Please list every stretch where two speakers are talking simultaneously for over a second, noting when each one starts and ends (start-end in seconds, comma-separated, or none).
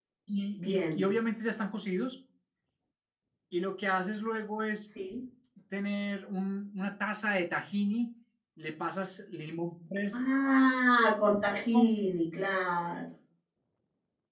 none